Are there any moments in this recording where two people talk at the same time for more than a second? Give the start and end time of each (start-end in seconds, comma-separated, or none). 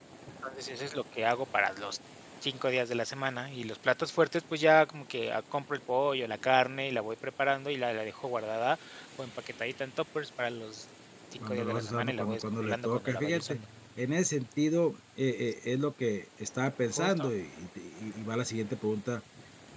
11.4-13.6